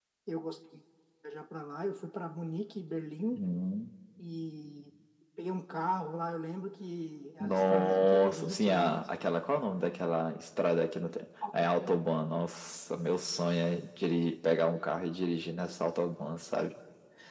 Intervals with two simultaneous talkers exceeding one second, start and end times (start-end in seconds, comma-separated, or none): 7.4-9.0